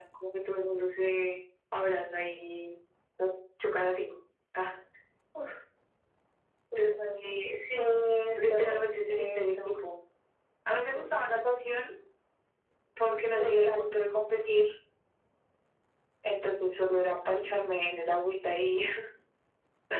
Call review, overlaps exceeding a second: present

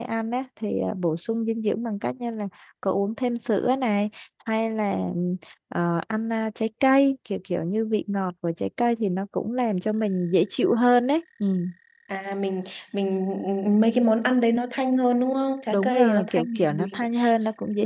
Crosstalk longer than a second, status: present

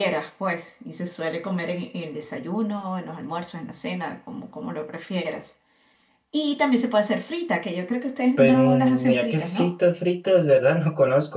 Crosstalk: present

